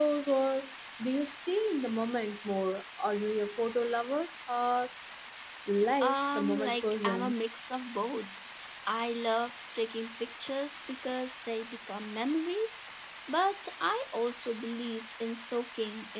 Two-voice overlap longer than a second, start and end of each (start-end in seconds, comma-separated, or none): 6.0-7.3